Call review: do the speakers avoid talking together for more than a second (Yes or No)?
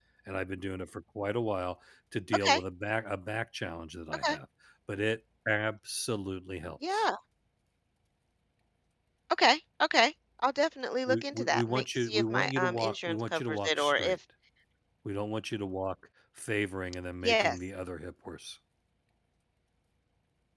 No